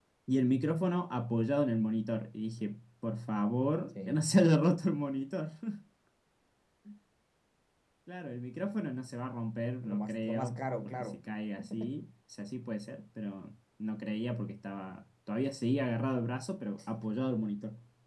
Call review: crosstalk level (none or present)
present